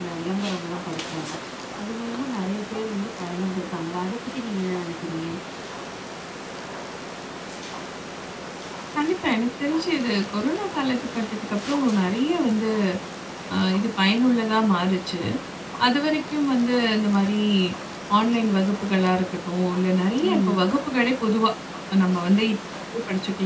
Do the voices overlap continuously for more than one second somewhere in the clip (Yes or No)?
No